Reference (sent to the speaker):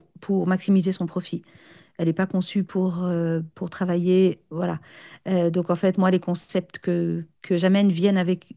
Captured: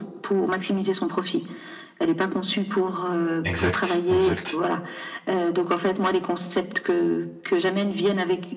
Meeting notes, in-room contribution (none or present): present